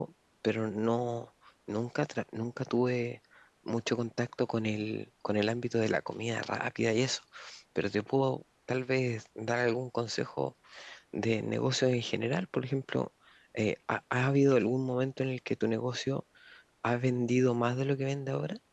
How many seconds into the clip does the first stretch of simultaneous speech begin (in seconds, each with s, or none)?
none